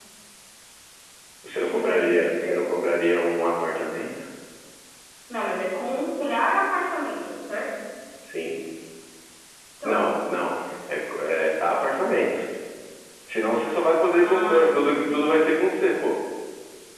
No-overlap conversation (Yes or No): No